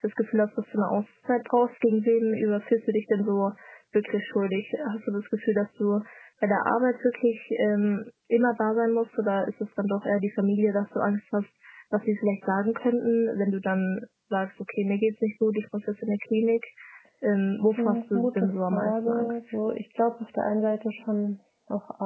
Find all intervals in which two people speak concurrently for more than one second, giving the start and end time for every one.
17.8-19.4

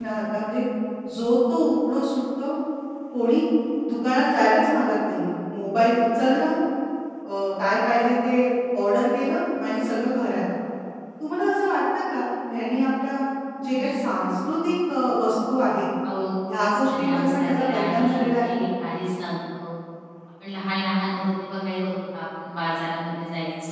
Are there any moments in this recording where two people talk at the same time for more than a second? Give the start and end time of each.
16.6-18.6

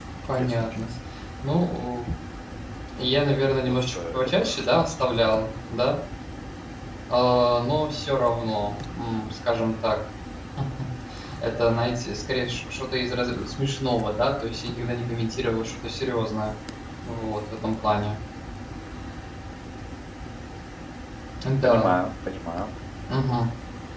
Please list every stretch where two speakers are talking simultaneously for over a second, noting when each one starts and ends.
3.7-5.2

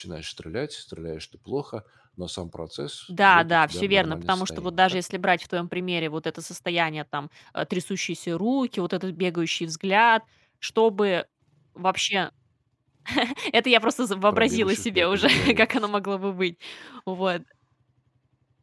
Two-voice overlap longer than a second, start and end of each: 3.1-5.0, 14.3-15.7

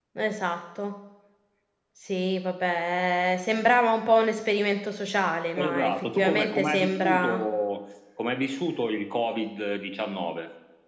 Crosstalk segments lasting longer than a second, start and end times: 5.6-7.4

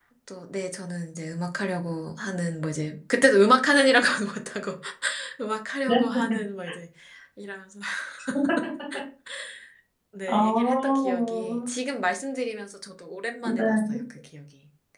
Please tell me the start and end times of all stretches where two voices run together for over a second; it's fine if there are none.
10.3-11.7

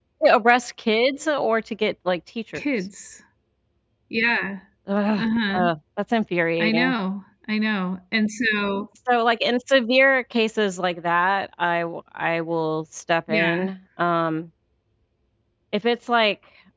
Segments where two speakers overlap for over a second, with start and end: none

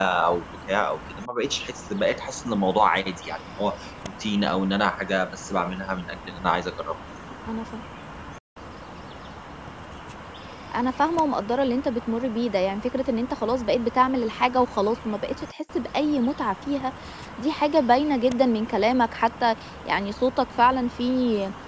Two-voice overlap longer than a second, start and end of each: none

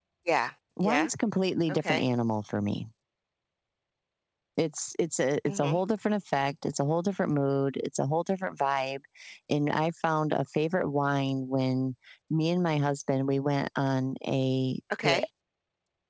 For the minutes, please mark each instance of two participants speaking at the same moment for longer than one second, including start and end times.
none

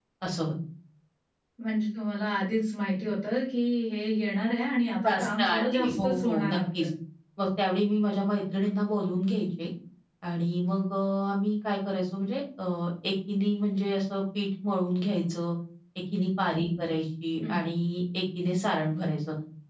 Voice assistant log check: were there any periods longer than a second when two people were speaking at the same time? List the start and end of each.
5.1-6.9

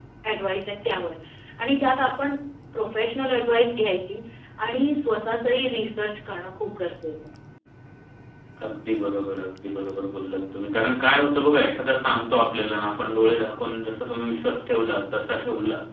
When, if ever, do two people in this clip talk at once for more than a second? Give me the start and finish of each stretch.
none

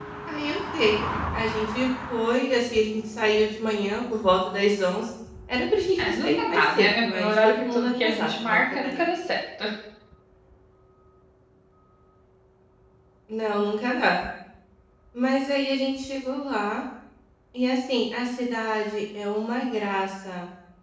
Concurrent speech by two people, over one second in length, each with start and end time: 6.0-9.1

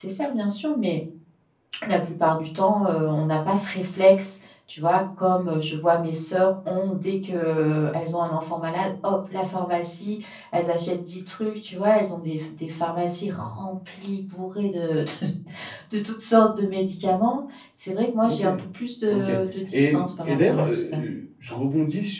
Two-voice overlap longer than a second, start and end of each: 19.7-21.0

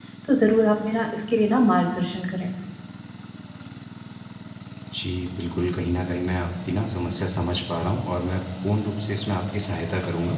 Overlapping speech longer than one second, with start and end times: none

